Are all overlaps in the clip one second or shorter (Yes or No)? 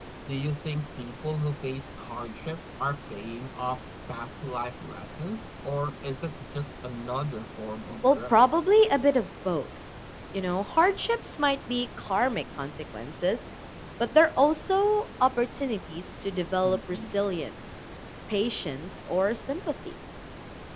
Yes